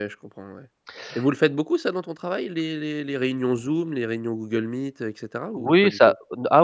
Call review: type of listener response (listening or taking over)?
taking over